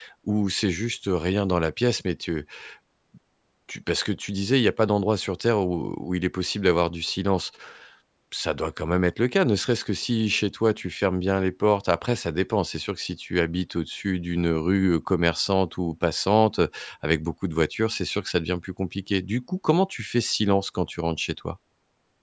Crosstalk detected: No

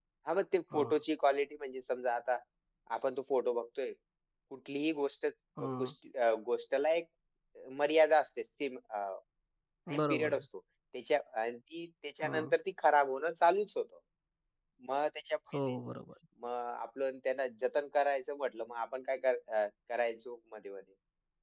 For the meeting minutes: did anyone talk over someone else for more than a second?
No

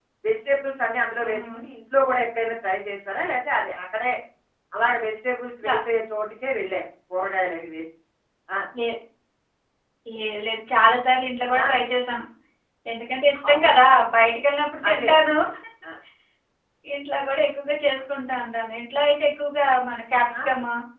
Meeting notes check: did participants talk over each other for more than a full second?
No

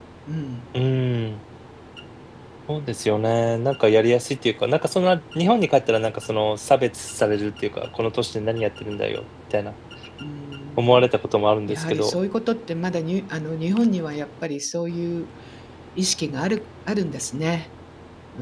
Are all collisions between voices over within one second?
Yes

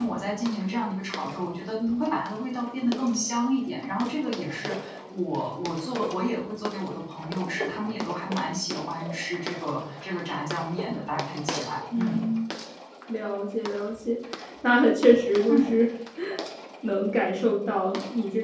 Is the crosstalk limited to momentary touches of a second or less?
Yes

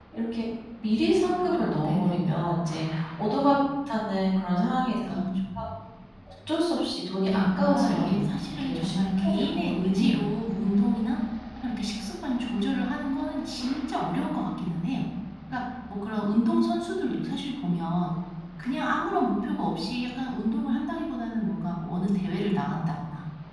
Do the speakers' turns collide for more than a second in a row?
Yes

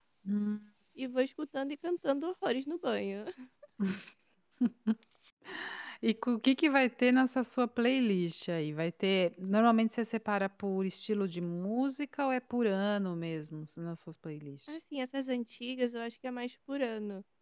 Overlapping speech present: No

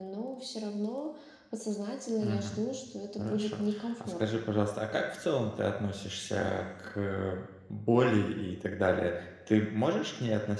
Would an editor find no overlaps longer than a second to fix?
No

